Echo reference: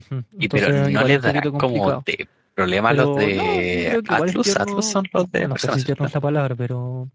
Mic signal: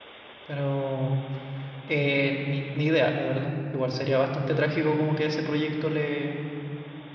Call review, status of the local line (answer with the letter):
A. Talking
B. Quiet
A